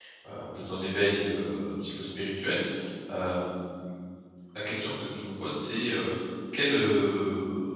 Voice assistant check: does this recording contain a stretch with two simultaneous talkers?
No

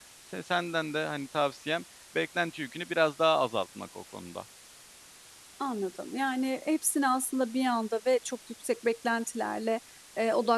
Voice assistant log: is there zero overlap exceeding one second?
Yes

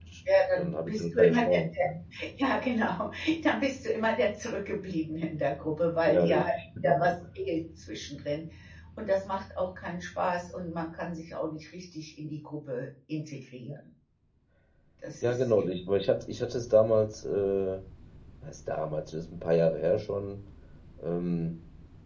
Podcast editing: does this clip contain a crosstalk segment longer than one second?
Yes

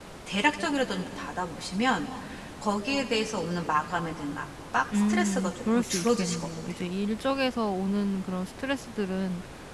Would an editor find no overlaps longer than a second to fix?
No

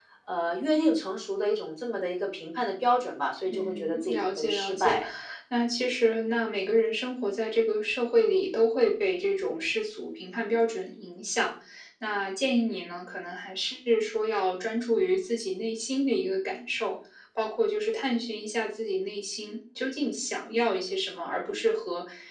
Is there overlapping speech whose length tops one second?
Yes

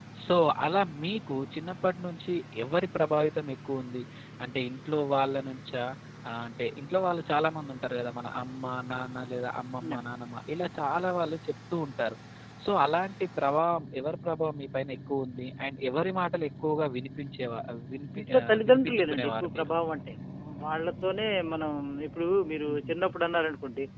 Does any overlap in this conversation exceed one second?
Yes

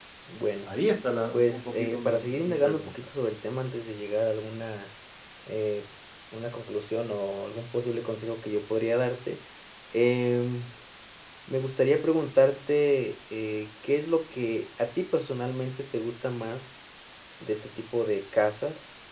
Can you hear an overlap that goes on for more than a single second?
Yes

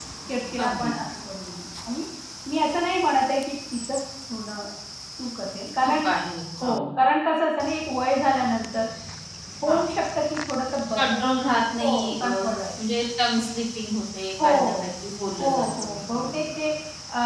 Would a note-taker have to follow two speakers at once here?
Yes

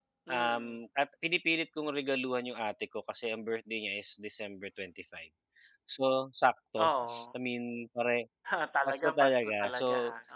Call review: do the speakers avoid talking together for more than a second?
No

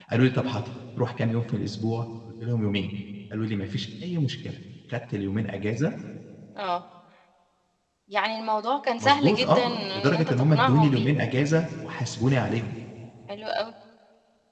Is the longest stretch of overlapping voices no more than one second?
No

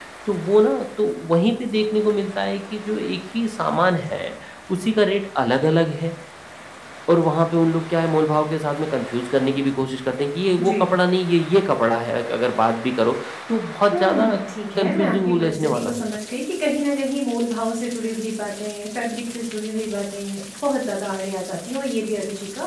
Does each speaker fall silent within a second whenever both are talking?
No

